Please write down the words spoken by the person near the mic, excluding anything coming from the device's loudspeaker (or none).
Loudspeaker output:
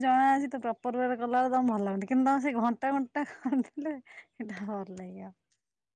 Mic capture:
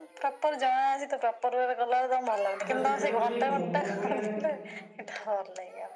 ଆଚ୍ଛା ସେଇଟାକୁ ସେଇ ମୋମୋ ଭଳିଆ